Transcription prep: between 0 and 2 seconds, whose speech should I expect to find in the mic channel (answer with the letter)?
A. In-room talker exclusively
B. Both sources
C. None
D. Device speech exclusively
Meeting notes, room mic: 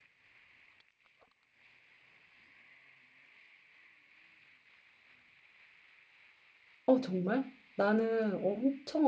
C